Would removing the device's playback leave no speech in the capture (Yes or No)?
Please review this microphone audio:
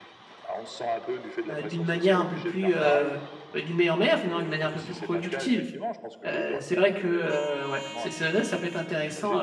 No